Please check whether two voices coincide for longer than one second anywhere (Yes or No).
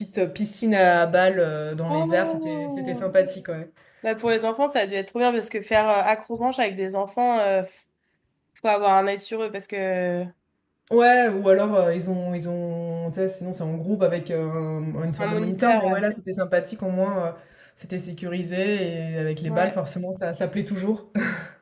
Yes